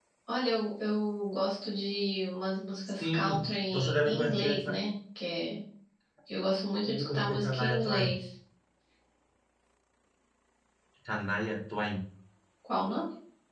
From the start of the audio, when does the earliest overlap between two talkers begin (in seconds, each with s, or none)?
3.0 s